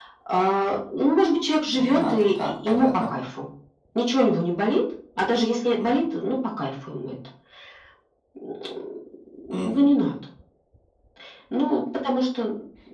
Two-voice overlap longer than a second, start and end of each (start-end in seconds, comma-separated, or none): 1.7-3.1